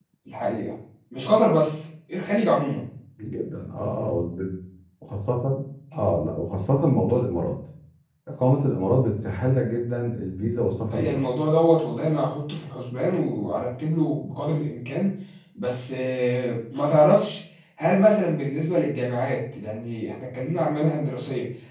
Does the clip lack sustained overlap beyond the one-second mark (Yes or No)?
Yes